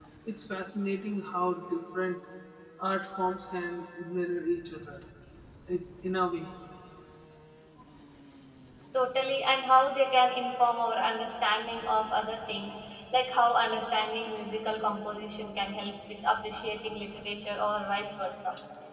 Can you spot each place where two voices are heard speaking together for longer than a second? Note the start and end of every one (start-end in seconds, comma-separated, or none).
none